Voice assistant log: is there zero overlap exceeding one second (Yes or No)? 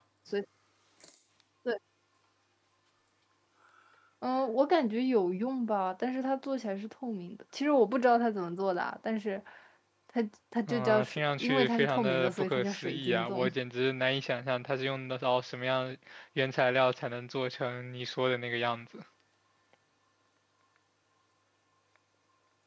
No